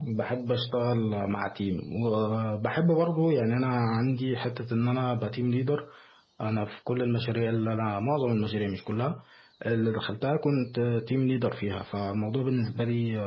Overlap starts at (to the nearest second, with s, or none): none